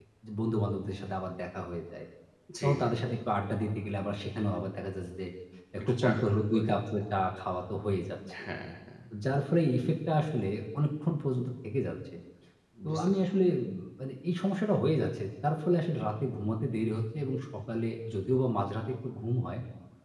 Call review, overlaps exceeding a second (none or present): present